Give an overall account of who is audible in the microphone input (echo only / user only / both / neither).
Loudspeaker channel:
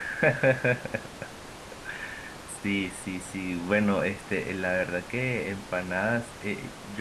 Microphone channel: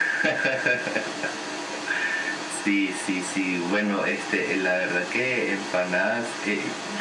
echo only